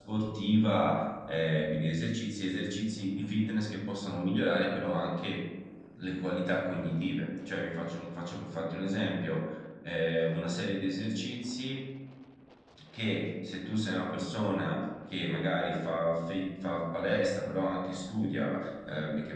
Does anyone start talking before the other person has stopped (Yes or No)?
No